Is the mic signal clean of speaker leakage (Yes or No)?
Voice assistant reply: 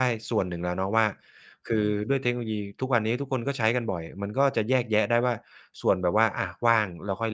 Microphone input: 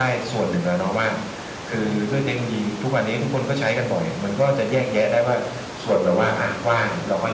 No